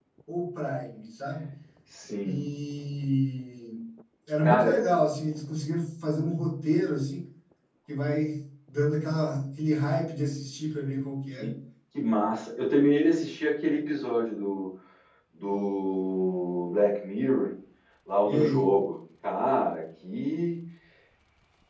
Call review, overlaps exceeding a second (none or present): none